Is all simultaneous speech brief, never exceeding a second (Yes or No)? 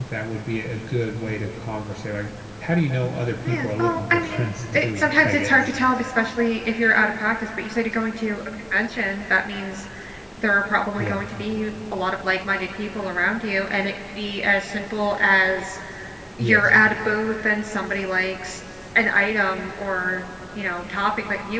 No